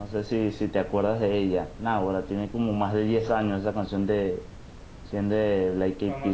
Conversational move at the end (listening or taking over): taking over